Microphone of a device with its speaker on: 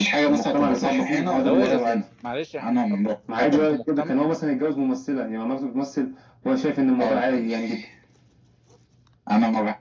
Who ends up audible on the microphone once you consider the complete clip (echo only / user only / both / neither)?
both